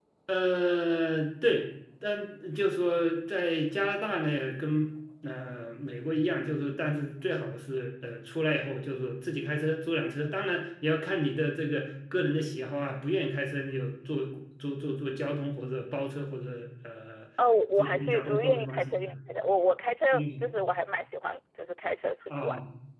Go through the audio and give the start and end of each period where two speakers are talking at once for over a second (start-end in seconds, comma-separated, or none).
17.8-19.0